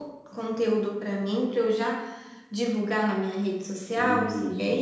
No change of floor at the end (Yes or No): No